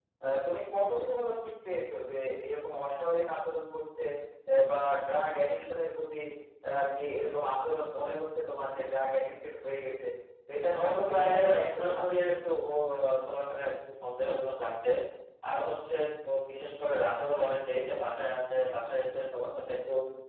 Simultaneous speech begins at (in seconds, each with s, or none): 10.7 s